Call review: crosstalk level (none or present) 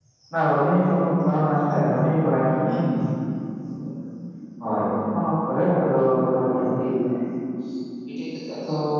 none